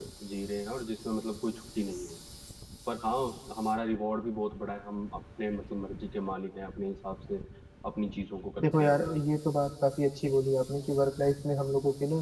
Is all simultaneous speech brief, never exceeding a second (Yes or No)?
Yes